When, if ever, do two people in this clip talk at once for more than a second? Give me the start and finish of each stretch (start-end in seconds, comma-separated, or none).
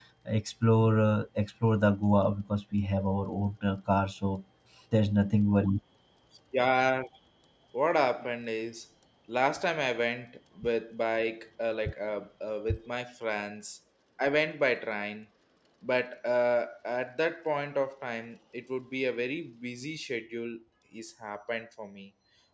none